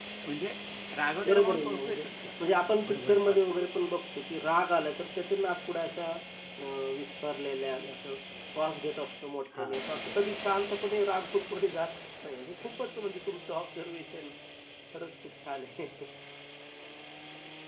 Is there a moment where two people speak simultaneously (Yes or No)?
Yes